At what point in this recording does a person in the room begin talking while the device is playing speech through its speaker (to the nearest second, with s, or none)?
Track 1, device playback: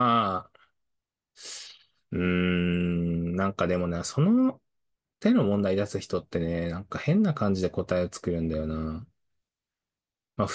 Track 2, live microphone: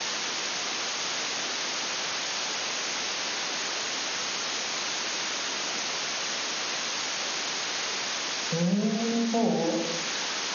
9 s